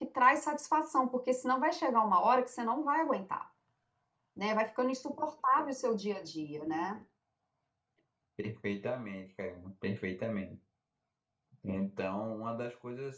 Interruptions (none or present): none